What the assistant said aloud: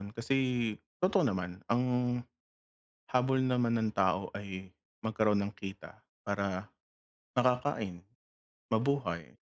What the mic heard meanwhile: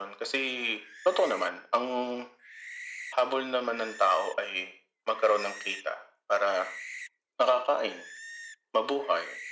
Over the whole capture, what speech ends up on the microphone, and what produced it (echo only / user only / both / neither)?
echo only